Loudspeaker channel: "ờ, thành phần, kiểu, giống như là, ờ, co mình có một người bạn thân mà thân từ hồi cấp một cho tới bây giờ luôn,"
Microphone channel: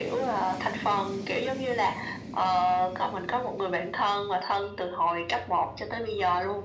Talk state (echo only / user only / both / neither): echo only